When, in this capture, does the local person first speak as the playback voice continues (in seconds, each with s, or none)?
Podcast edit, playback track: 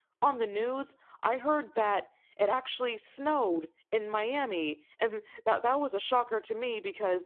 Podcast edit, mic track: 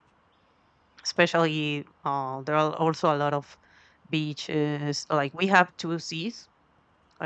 1.0 s